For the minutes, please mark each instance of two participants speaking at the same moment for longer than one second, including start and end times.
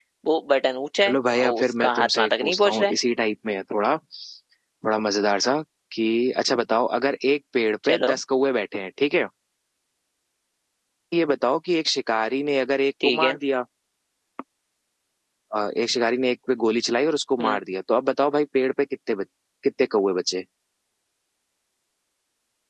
1.1-3.0

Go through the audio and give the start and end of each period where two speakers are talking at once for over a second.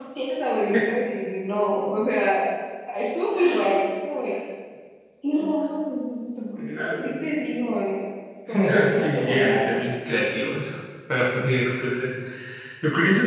8.5-9.8

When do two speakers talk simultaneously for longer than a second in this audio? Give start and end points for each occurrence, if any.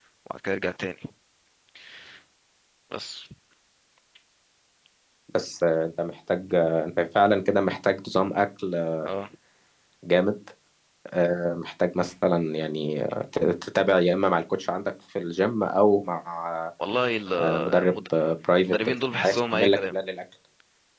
18.6-19.9

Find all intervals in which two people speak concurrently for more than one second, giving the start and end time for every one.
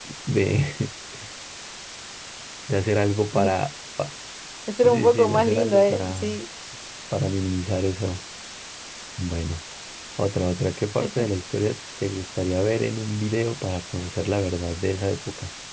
4.8-6.4

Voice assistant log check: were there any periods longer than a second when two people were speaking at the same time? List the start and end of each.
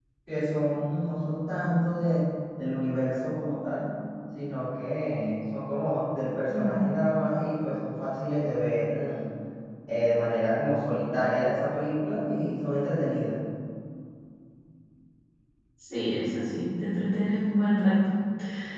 none

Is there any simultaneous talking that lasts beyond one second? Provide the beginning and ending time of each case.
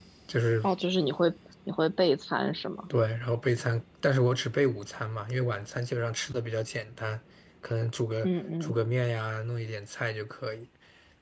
none

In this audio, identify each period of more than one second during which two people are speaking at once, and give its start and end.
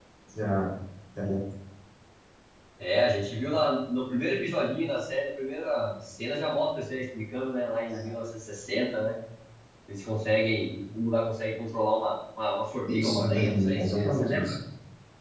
12.9-14.5

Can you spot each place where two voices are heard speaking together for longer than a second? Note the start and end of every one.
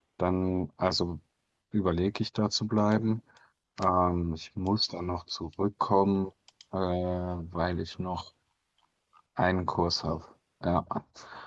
none

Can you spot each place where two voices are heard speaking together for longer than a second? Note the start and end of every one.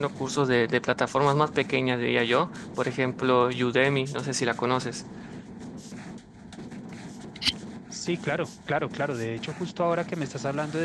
none

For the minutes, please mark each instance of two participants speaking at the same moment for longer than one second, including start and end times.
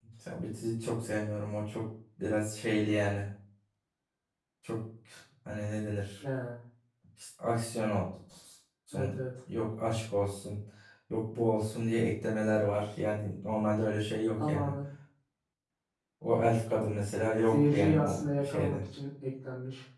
17.5-18.8

